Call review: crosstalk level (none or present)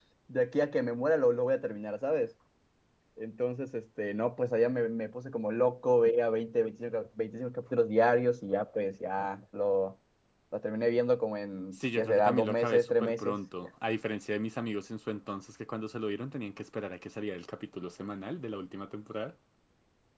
present